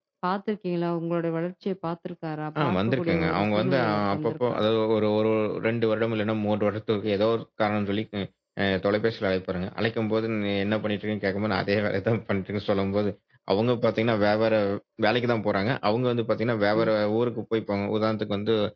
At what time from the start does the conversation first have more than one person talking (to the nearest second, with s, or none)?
3 s